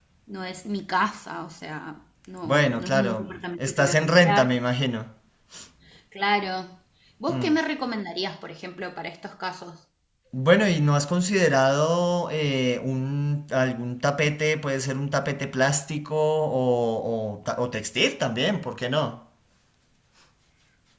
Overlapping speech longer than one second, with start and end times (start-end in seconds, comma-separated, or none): 2.5-4.5